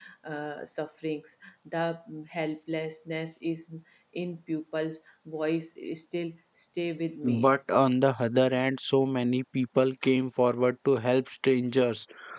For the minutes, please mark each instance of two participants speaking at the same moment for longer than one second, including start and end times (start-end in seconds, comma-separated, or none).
none